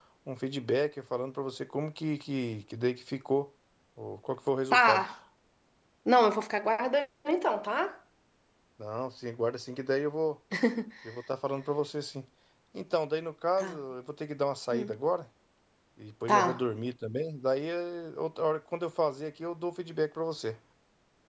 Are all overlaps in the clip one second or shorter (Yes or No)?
Yes